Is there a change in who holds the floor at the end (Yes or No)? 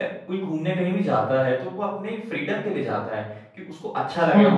Yes